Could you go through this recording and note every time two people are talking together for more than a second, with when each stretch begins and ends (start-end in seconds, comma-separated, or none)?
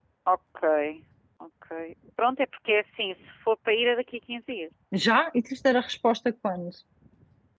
none